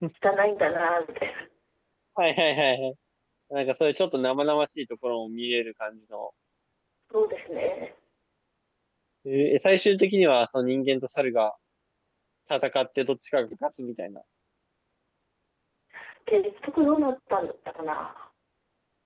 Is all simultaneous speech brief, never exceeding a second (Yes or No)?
Yes